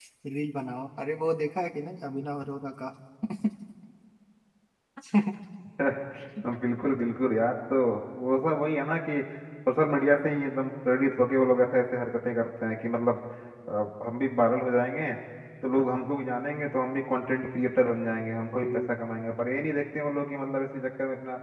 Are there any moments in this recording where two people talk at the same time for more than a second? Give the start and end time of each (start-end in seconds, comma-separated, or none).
none